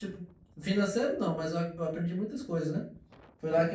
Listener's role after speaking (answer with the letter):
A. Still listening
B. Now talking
A